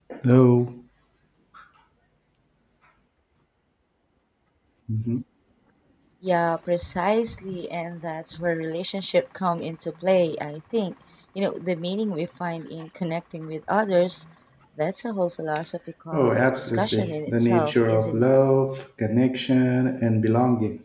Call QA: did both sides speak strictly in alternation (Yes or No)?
No